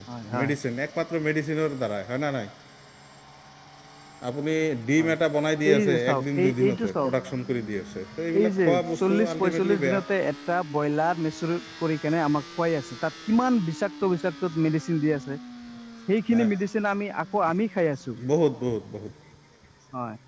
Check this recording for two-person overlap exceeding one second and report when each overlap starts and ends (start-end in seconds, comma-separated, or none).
5.7-7.1, 8.4-9.9